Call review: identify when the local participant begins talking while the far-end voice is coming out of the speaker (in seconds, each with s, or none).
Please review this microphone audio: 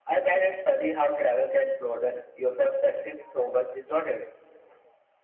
none